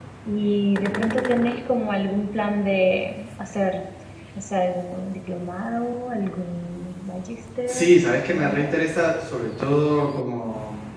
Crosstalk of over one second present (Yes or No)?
No